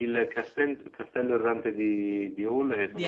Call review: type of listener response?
listening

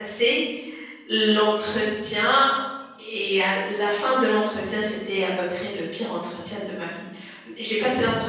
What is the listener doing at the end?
listening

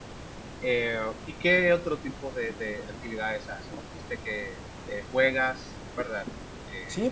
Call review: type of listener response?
taking over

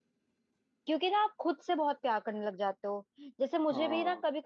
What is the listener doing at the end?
listening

